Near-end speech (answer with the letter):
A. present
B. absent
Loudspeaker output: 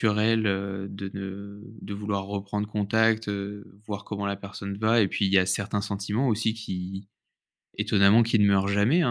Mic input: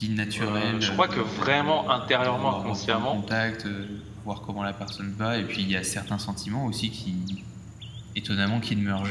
A